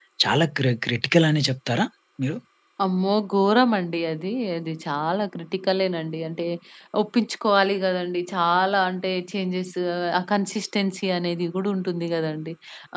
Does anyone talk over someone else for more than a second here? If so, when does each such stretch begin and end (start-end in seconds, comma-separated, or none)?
none